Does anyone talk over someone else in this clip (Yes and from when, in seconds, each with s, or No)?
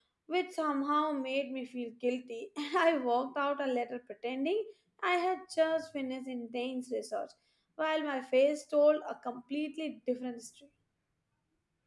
No